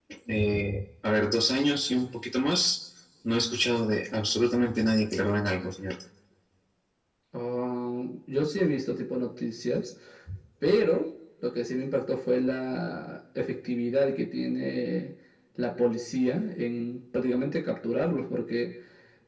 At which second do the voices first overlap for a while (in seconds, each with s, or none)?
none